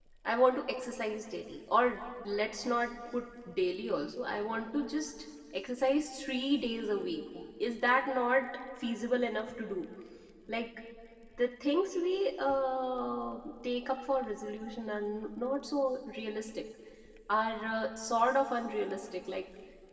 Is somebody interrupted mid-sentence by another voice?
No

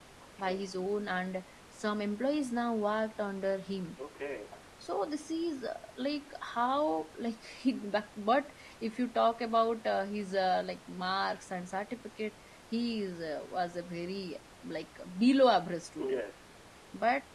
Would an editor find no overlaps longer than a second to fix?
Yes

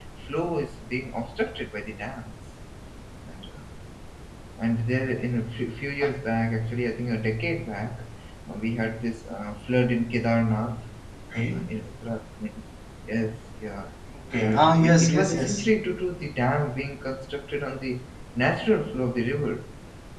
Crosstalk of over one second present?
Yes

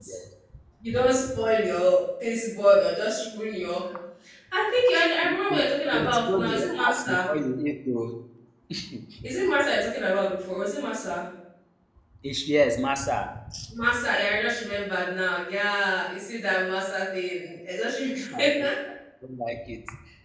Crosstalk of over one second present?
Yes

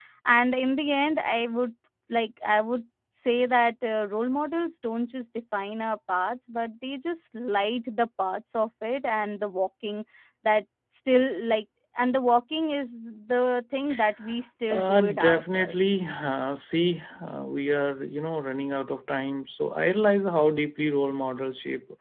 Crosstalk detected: Yes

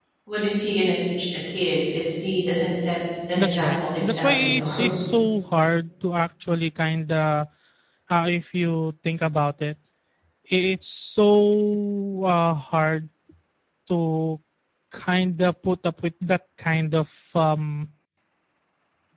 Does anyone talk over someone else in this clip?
Yes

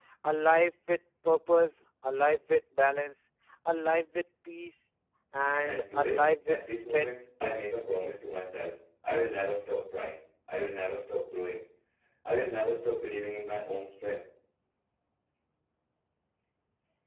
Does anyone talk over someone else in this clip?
Yes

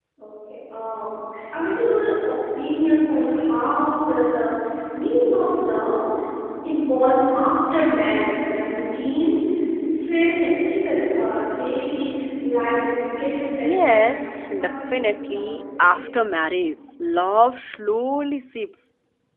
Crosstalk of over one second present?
Yes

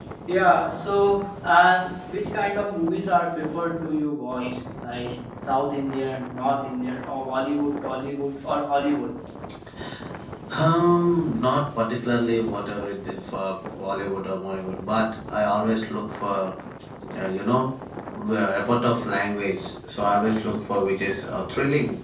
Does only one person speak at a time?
Yes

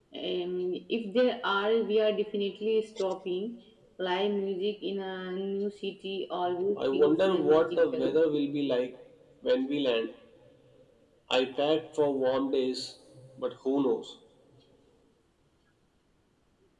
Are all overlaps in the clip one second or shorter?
No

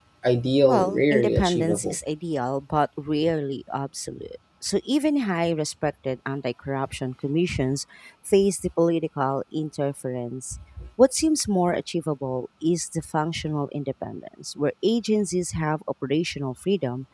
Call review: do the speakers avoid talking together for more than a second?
No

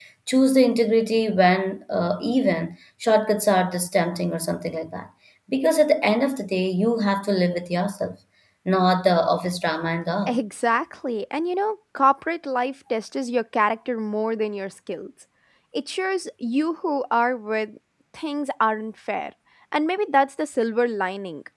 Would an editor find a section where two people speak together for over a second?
No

